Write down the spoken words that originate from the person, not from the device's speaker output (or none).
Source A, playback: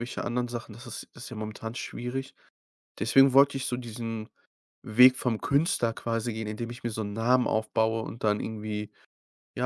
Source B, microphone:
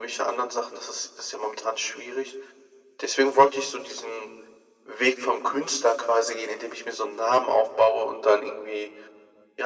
none